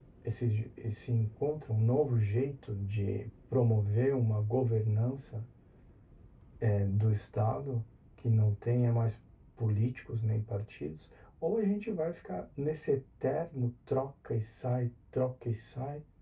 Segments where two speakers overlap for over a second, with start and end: none

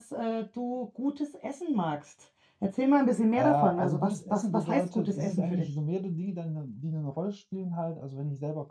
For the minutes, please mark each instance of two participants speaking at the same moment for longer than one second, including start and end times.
3.3-5.6

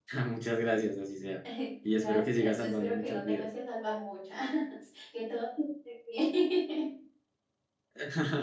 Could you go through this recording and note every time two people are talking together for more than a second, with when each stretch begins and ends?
1.9-3.5

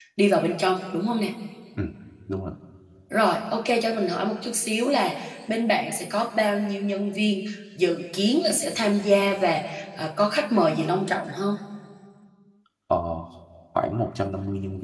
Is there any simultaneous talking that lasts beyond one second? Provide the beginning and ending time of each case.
none

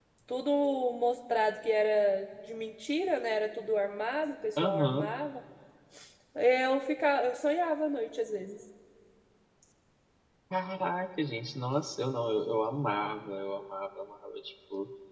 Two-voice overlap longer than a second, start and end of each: none

